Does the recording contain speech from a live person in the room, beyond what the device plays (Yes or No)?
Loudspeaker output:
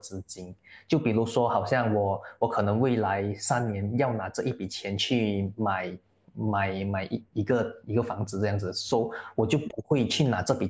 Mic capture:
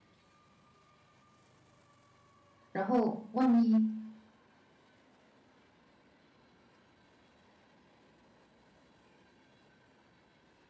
Yes